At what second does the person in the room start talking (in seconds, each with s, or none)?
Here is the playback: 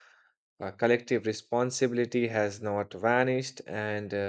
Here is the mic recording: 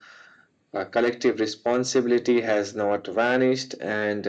none